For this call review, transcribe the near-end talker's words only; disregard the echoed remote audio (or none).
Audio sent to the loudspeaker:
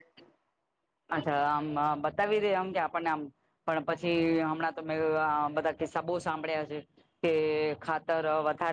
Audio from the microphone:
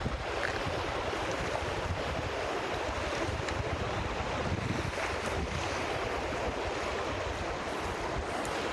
none